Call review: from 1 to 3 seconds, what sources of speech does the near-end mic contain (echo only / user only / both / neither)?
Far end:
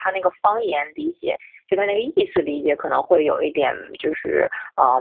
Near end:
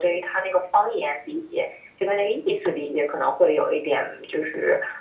echo only